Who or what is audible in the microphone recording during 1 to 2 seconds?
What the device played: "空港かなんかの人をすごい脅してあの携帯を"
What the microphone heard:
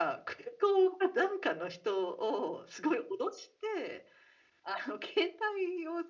echo only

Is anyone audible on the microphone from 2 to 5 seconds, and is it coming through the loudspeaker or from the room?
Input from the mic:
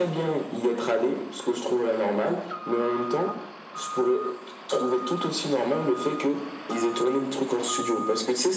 echo only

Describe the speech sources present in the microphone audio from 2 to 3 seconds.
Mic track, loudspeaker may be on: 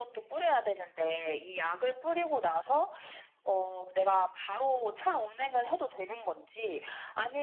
echo only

